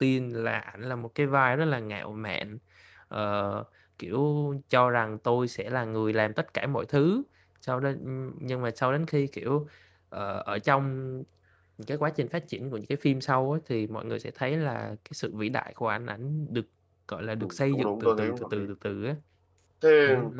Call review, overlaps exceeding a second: present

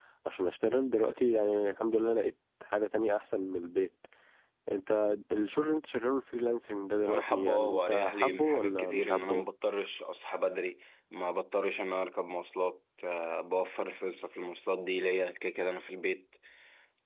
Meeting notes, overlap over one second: present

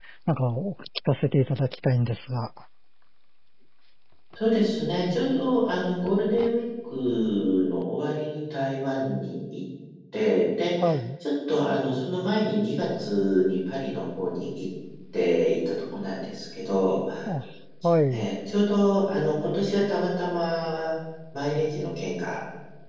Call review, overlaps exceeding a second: none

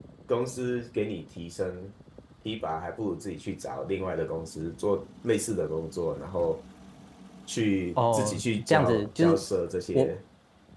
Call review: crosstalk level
present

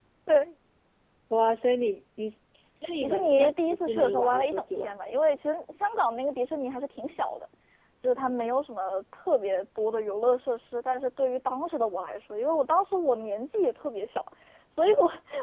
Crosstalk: present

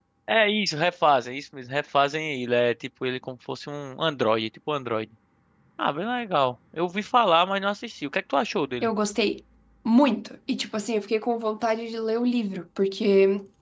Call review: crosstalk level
none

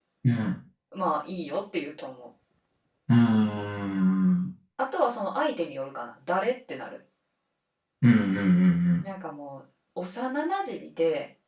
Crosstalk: none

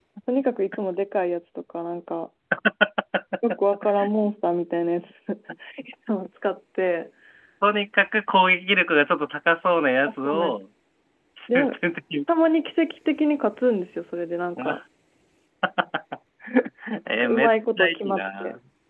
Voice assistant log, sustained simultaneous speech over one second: present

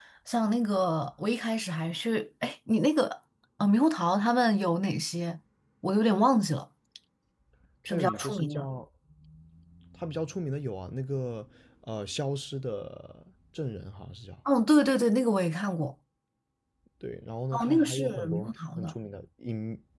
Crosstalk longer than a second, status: present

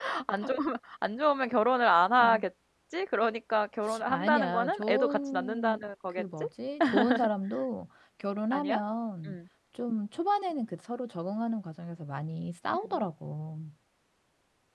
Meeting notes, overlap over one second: present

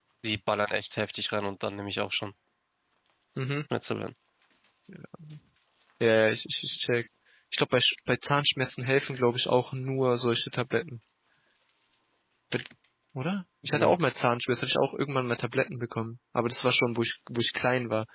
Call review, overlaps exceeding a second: none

